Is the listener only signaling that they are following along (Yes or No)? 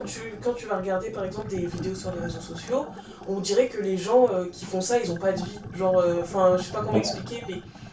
Yes